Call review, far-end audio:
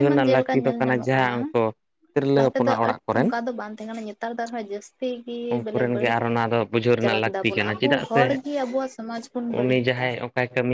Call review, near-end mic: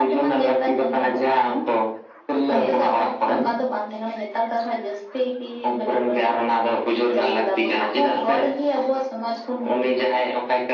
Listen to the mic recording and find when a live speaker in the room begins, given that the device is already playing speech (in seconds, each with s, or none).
2.5 s